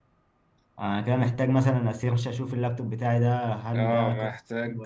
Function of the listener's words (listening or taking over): taking over